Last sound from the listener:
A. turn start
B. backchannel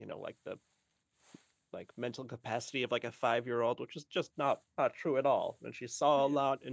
B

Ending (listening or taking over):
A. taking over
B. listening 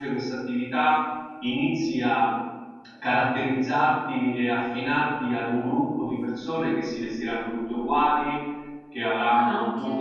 B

